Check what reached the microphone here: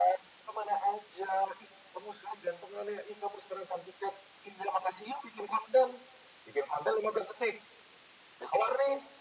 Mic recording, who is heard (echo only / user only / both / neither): echo only